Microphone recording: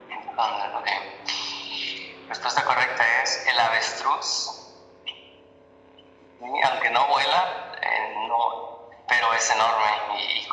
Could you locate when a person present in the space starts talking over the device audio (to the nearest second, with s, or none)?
none